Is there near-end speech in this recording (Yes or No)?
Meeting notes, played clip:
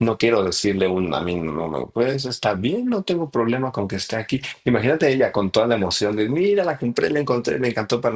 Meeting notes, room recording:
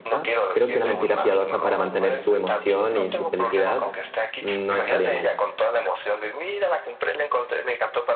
Yes